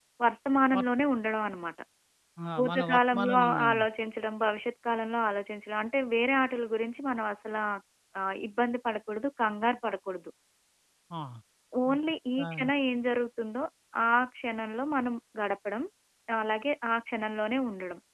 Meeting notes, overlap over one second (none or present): present